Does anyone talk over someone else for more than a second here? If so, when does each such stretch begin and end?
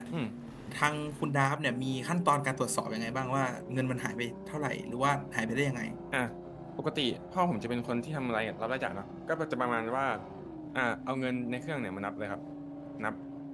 none

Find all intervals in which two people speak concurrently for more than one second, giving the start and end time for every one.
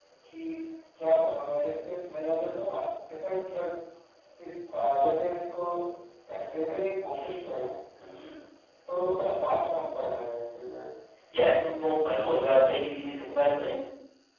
none

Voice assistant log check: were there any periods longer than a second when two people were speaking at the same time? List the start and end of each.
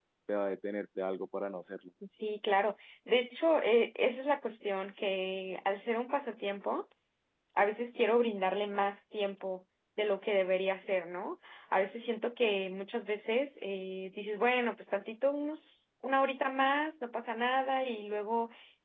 none

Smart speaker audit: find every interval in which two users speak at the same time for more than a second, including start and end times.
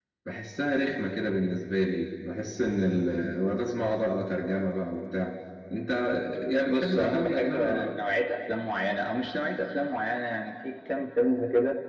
6.7-7.9

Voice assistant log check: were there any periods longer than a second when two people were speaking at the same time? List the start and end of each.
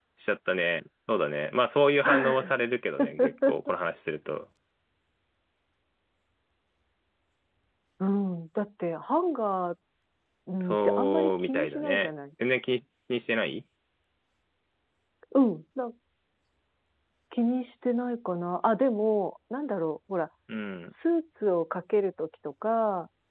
10.6-12.1

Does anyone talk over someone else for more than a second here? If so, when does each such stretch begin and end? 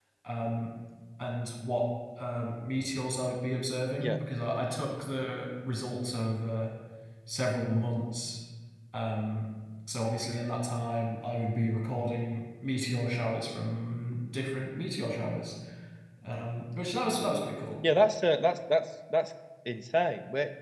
none

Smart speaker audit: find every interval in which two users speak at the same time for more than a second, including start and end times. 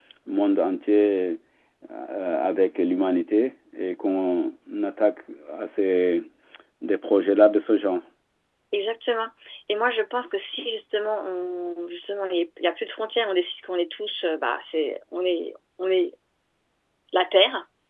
none

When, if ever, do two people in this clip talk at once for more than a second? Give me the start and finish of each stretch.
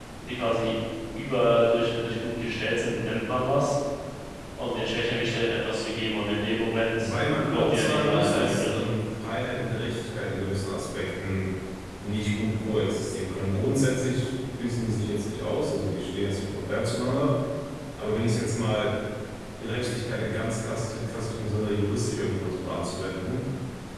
7.0-8.9

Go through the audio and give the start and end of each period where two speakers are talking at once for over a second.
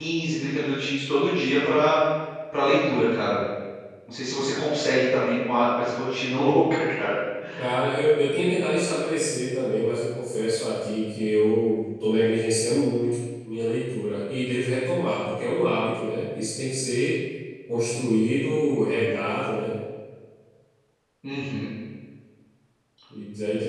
none

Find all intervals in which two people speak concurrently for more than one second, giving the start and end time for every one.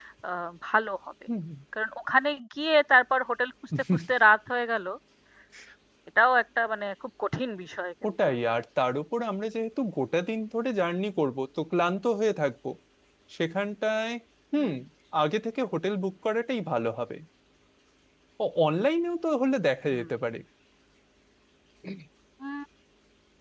none

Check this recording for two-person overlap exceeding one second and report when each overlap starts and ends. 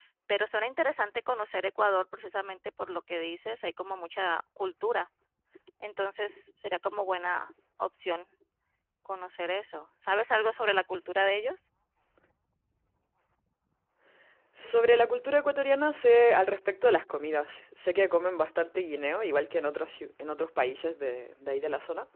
none

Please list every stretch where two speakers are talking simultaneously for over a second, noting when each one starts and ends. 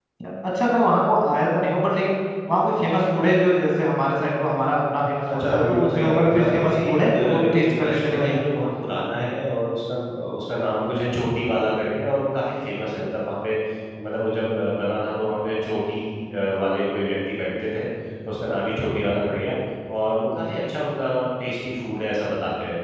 5.3-8.3

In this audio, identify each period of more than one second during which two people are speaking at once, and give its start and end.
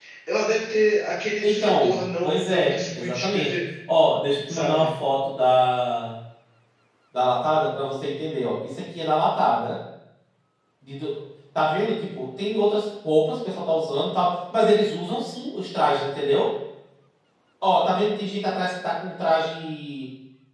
1.4-3.6

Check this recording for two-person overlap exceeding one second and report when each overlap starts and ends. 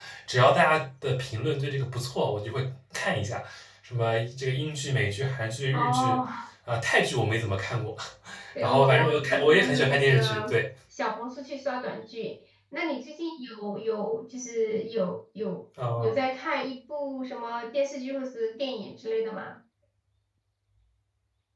8.6-10.6

